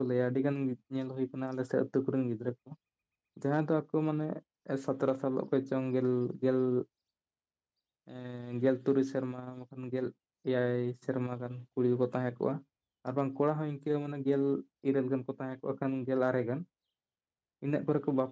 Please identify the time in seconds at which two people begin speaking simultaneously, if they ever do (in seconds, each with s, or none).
none